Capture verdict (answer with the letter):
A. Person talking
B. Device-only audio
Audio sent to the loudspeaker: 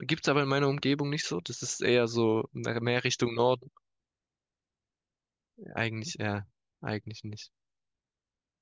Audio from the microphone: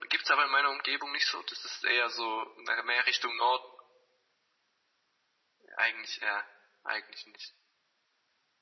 B